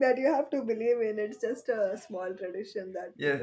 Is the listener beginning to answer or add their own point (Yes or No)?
Yes